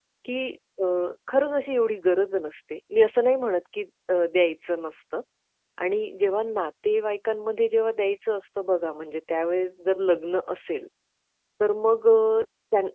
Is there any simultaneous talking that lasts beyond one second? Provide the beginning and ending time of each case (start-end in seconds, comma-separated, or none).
none